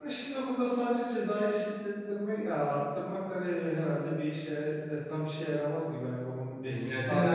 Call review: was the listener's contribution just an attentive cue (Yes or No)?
No